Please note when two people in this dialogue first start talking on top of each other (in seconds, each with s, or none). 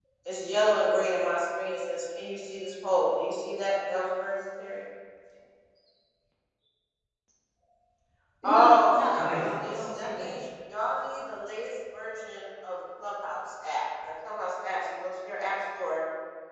8.4 s